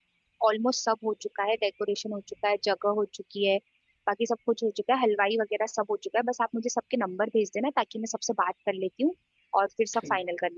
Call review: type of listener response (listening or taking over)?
taking over